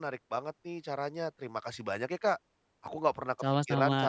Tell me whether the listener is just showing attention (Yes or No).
Yes